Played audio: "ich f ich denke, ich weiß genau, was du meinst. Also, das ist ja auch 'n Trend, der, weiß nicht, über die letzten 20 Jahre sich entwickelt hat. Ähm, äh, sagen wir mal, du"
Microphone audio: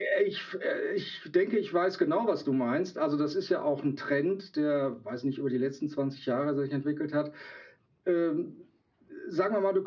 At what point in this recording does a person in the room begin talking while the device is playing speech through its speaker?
none

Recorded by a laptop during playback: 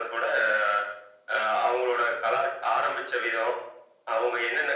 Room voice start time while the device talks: none

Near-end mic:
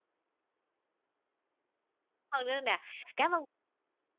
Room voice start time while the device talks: 2.3 s

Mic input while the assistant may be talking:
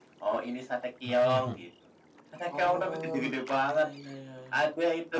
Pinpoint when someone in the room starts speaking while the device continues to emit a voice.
1.0 s

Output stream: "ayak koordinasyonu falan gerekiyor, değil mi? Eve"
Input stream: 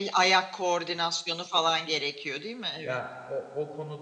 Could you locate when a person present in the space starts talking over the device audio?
2.8 s

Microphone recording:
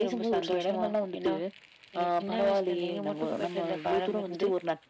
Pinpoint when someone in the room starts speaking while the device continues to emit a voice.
none

